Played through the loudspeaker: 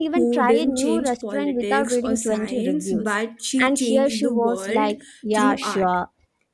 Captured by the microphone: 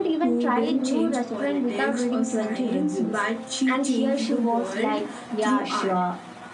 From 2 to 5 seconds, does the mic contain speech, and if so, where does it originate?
echo only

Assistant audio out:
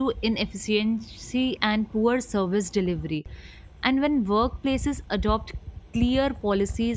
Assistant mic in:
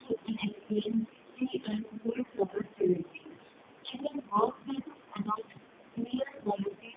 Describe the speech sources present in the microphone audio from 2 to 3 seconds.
echo only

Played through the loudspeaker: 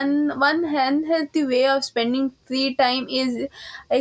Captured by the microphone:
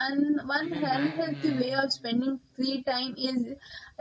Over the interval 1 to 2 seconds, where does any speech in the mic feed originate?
both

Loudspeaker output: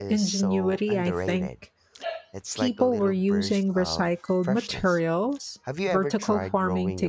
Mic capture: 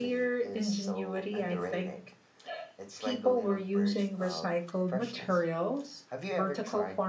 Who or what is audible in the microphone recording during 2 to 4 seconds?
echo only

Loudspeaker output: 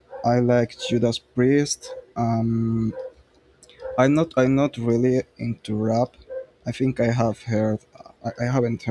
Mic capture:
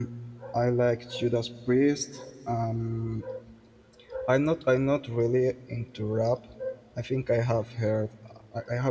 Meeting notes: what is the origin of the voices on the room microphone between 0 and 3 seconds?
echo only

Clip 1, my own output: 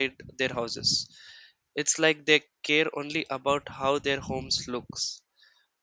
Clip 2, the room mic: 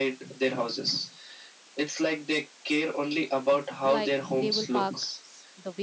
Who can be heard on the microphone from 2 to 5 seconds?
both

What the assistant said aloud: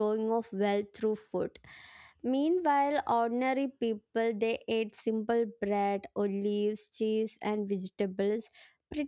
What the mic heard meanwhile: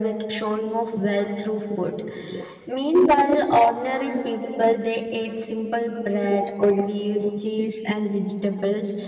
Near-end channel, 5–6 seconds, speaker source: echo only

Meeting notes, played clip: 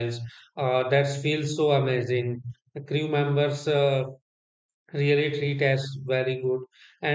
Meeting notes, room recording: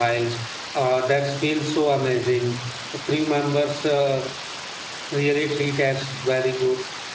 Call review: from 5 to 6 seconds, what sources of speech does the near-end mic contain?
echo only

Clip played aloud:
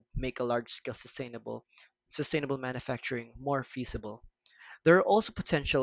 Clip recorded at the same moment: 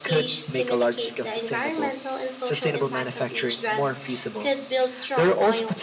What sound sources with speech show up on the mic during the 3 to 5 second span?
both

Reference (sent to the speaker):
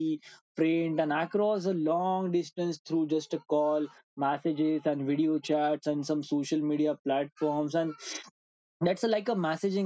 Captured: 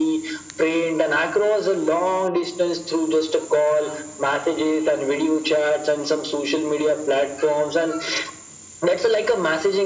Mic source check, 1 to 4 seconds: echo only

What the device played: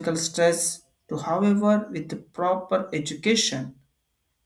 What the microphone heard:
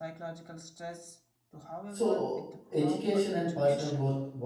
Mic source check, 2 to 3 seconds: both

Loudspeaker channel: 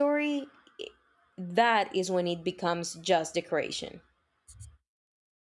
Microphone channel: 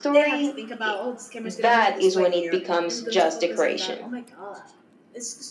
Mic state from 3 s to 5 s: both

